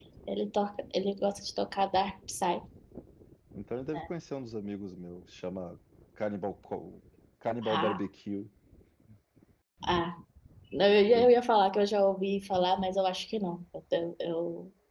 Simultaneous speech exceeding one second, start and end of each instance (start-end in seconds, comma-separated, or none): none